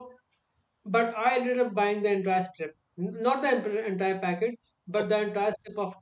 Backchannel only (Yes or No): Yes